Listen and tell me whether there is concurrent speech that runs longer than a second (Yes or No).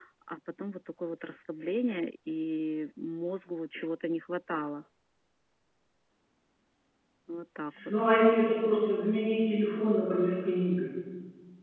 No